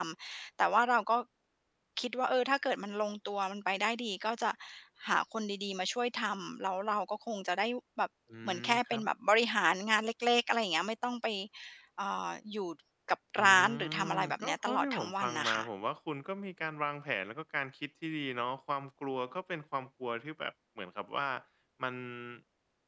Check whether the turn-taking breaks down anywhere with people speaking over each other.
Yes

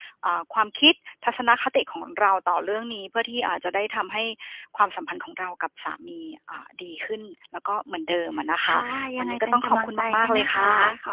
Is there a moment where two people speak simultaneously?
Yes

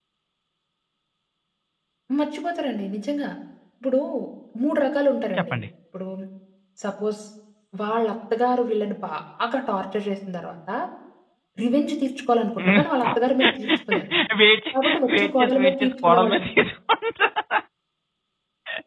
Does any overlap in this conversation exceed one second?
Yes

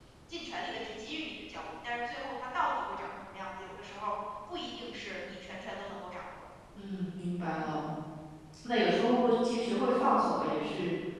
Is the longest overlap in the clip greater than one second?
No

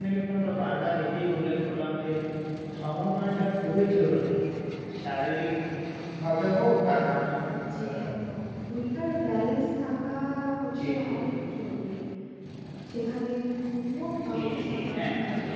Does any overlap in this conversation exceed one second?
Yes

